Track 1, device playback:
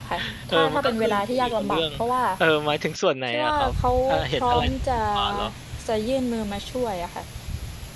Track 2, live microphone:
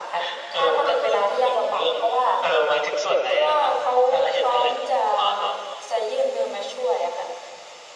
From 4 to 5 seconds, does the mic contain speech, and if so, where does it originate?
echo only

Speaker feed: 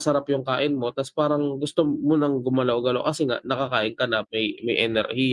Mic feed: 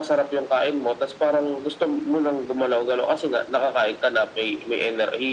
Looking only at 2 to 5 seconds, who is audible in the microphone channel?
echo only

